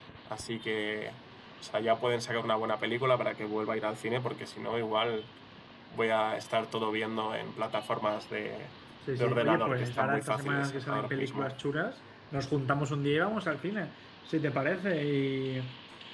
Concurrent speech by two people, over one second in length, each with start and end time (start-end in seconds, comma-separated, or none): 9.2-11.5